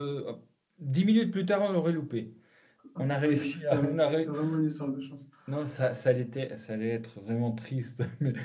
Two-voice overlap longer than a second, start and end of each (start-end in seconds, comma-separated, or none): 3.0-4.3